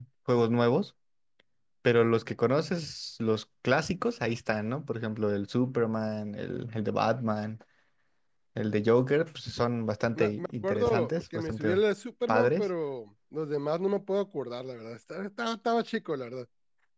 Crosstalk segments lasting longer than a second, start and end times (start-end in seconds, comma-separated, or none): 10.2-11.8